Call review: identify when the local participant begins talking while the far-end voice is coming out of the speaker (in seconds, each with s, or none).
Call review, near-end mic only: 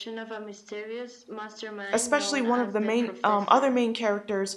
1.9 s